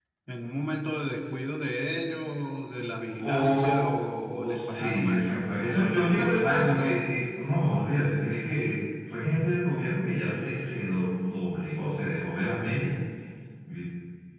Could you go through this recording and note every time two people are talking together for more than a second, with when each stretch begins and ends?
3.1-7.1

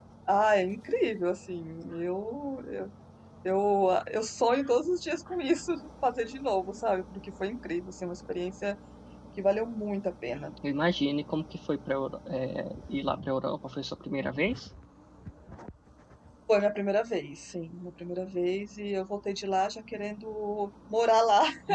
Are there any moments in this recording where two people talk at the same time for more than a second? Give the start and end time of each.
none

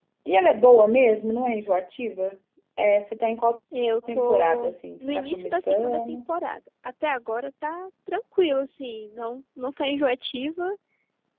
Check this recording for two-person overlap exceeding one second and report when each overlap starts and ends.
4.1-6.2

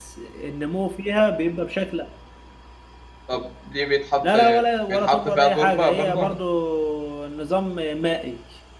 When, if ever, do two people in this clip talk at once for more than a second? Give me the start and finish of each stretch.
4.9-6.2

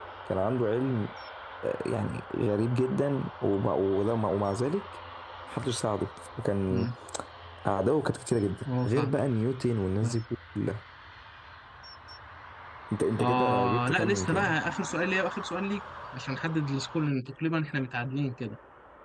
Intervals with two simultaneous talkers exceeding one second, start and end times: 13.2-14.6

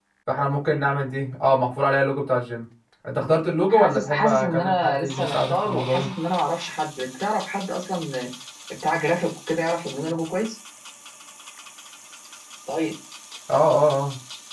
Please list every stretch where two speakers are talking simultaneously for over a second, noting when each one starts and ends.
3.7-6.1

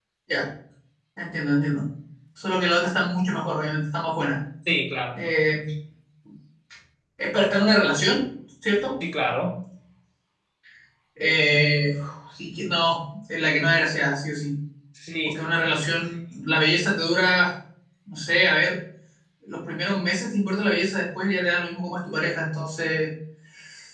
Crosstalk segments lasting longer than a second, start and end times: none

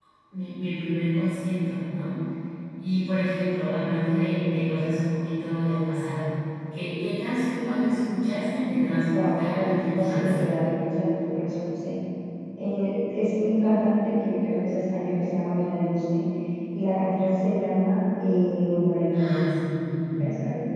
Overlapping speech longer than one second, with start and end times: 9.1-10.5

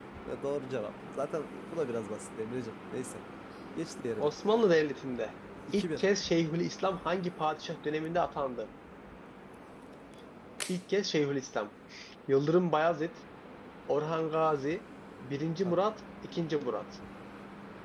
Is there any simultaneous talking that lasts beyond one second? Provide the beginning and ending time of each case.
none

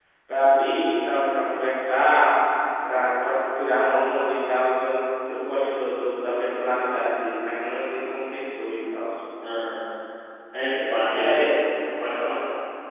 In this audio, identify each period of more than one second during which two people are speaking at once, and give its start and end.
none

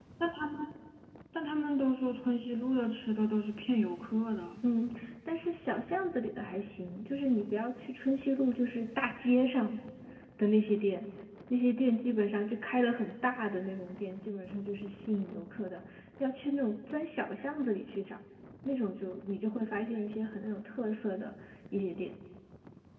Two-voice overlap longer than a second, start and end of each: none

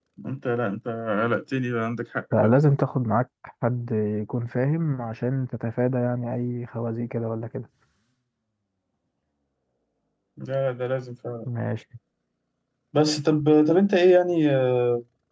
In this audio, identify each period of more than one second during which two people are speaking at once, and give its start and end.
none

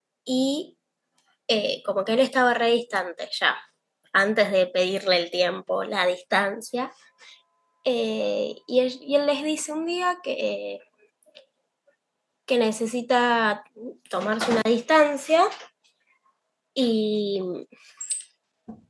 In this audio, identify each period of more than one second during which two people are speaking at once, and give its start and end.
none

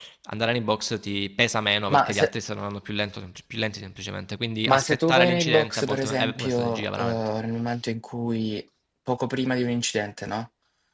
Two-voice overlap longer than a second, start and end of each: 4.7-7.2

